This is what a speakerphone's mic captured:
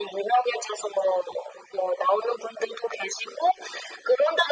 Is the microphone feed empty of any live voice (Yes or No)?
Yes